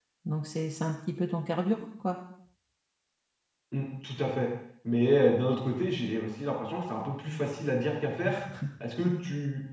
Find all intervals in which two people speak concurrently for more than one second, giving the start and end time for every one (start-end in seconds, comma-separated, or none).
none